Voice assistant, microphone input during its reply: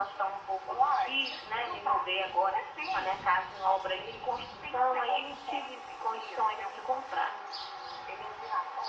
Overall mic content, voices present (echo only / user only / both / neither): echo only